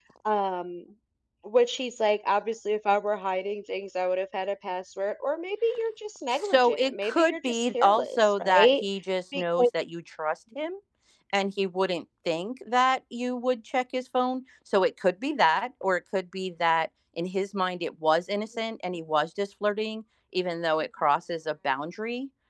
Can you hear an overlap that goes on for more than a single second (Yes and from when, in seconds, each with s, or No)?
Yes, from 6.4 s